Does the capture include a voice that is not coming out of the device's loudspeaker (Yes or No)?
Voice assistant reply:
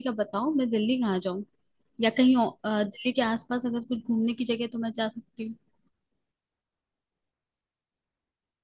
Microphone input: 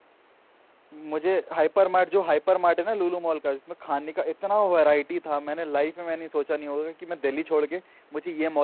Yes